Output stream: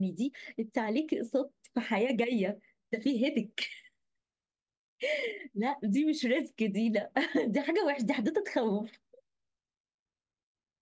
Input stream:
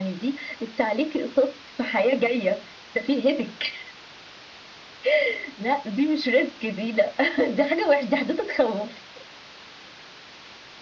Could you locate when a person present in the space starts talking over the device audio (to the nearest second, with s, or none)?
none